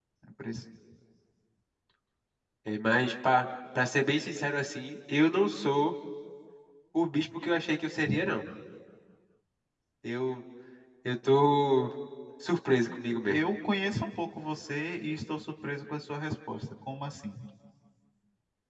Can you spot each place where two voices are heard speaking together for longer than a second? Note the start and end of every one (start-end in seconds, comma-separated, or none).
none